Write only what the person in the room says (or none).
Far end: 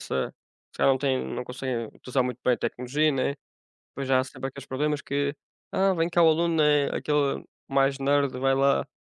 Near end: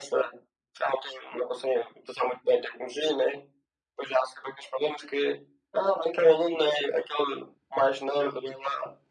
none